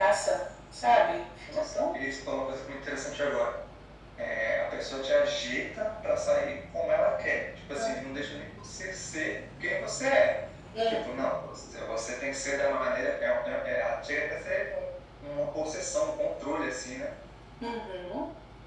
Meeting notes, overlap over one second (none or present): none